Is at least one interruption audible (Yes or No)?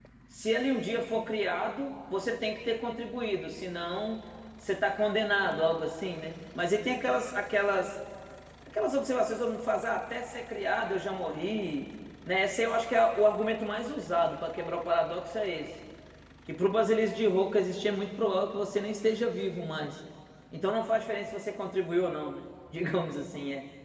No